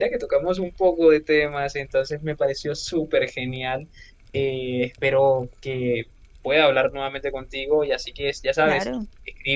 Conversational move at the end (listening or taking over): listening